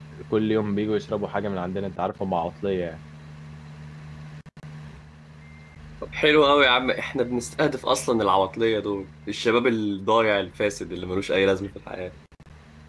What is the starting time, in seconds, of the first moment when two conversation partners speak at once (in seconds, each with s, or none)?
none